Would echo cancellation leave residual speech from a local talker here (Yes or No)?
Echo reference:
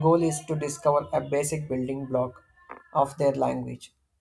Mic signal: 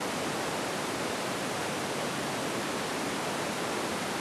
No